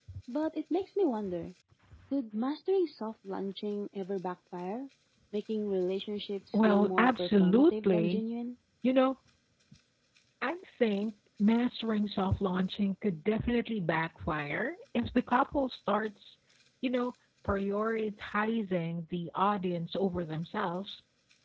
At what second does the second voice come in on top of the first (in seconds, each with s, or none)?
6.5 s